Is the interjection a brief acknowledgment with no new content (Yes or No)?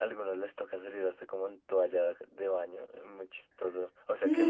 No